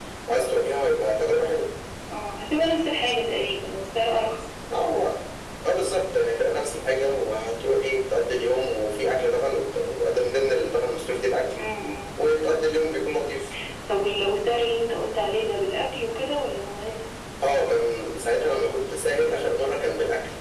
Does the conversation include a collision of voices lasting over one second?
No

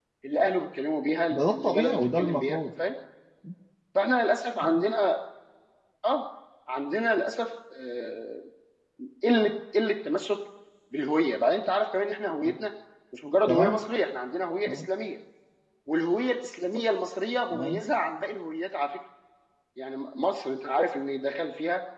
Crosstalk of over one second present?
Yes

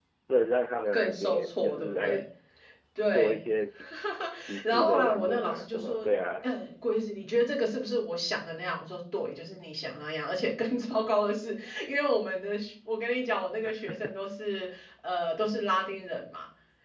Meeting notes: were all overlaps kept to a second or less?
No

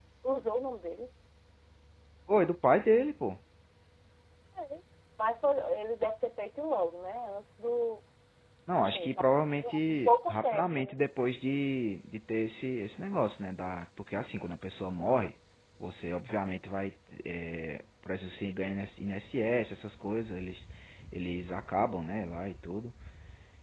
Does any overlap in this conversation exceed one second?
Yes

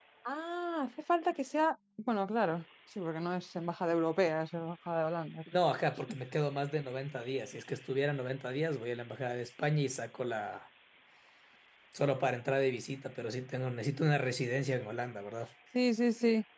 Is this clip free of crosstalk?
Yes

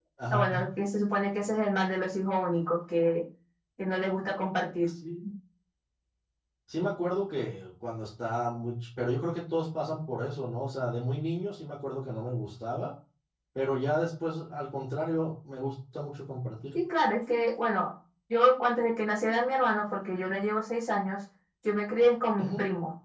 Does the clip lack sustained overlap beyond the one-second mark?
Yes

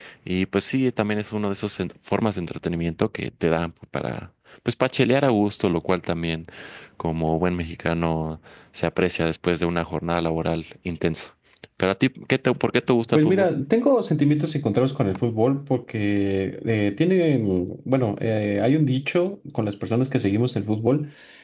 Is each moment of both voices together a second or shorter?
Yes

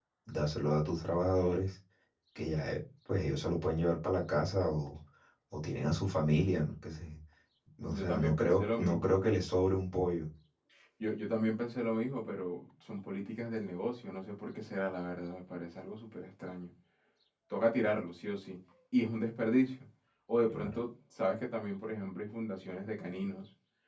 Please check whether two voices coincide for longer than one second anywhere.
Yes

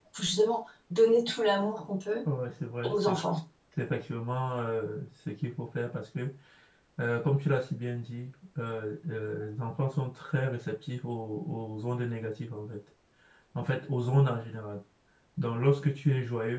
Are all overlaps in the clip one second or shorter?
Yes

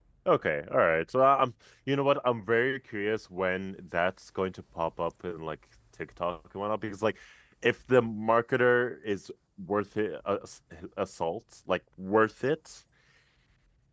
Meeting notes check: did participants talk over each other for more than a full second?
No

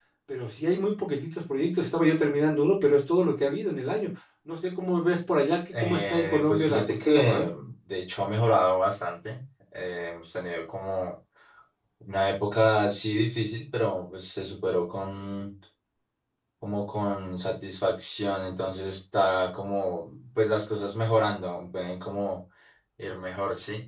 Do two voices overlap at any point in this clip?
Yes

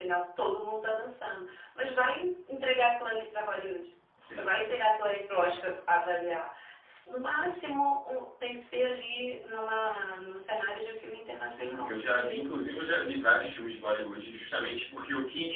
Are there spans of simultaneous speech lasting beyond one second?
Yes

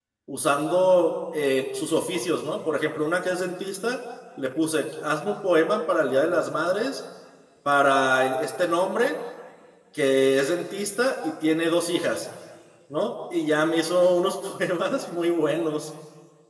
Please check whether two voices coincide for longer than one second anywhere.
No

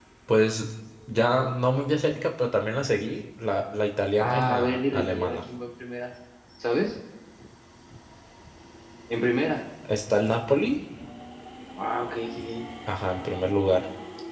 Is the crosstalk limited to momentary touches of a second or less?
No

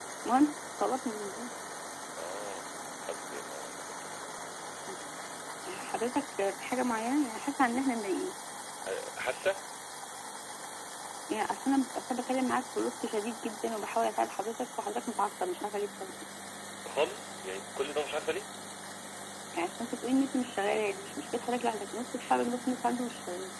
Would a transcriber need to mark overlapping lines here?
No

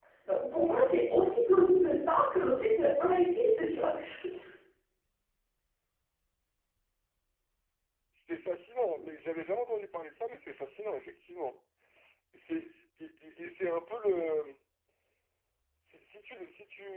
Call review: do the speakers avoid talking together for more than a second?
Yes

